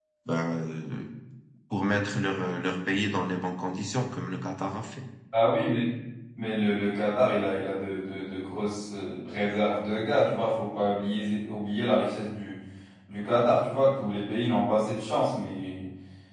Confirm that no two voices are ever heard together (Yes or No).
Yes